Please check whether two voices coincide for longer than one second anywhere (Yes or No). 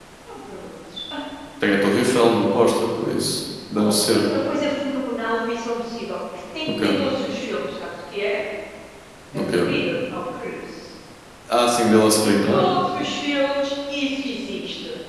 No